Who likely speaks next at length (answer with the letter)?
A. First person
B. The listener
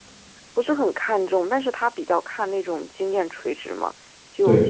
A